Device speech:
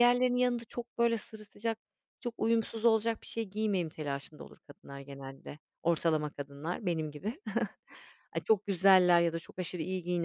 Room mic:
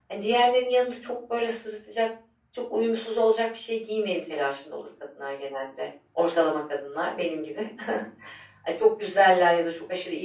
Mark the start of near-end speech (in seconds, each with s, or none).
none